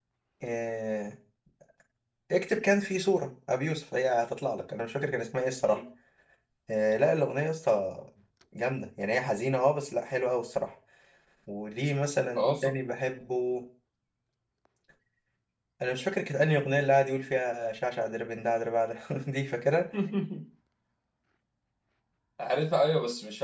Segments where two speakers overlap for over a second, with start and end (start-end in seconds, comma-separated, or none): none